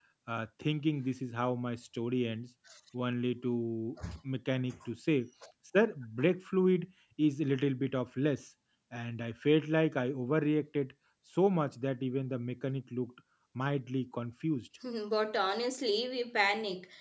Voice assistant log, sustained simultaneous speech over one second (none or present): none